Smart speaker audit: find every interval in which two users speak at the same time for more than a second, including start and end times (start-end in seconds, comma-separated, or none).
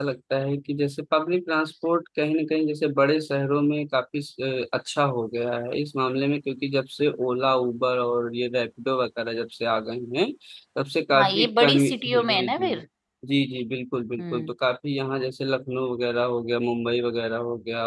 11.1-12.8